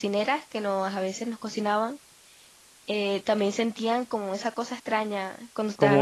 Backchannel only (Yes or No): No